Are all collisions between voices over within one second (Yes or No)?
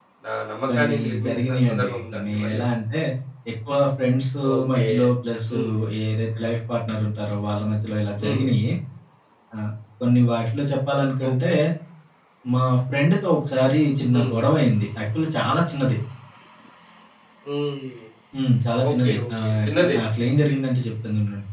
No